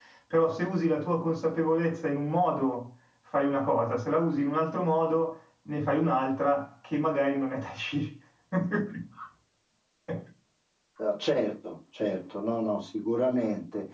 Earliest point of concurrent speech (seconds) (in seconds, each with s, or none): none